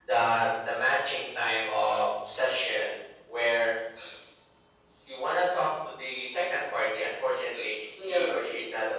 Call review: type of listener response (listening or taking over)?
listening